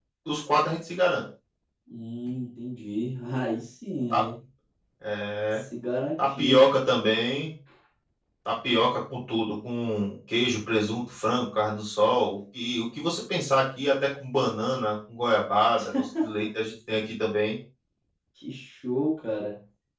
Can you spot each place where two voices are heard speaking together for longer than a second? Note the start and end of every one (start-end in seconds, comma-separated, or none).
none